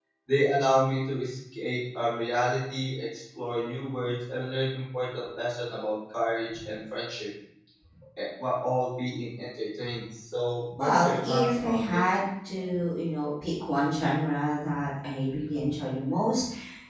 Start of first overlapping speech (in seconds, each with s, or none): 10.7 s